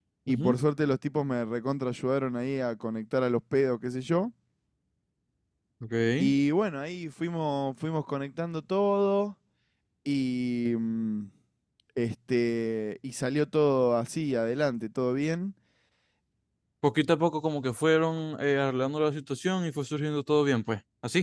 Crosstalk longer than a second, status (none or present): none